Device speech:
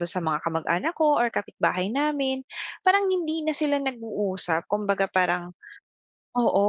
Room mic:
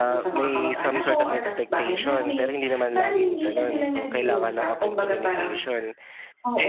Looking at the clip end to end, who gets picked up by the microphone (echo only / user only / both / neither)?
both